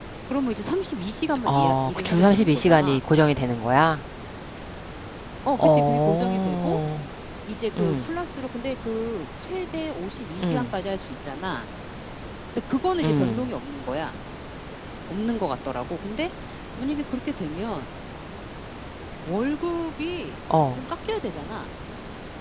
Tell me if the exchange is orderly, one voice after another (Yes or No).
No